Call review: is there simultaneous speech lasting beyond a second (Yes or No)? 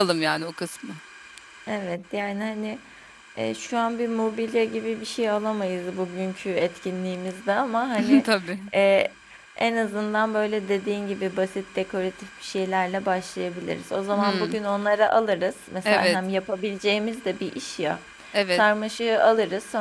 No